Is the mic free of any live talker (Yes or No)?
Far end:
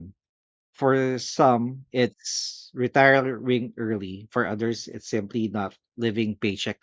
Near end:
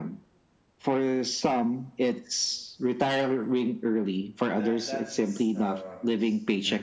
No